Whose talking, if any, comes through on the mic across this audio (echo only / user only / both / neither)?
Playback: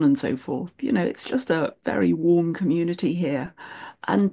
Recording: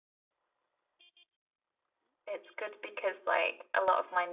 user only